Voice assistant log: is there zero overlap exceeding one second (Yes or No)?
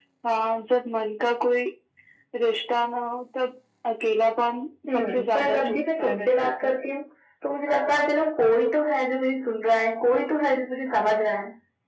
No